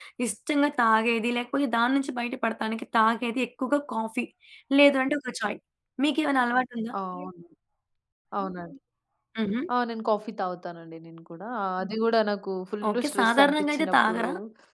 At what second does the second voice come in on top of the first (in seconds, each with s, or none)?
12.8 s